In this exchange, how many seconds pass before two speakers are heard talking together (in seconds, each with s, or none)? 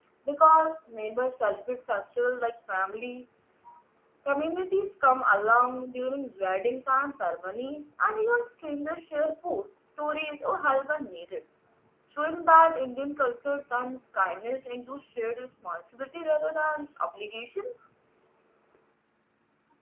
none